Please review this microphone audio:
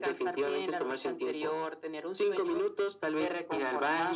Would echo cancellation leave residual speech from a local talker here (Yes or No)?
No